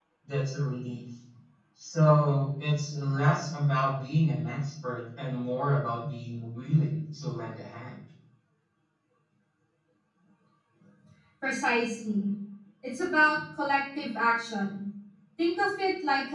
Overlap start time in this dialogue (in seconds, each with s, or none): none